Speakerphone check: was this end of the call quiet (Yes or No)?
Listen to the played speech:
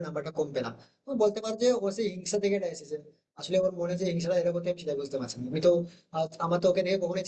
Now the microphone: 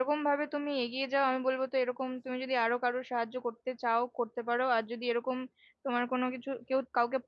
No